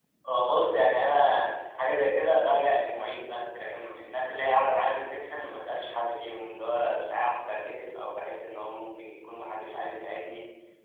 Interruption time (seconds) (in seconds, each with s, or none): none